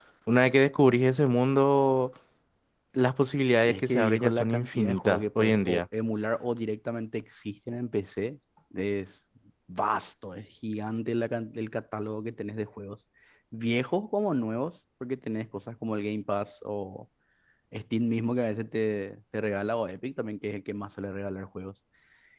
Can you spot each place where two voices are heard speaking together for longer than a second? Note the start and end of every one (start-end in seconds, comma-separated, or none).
3.6-5.8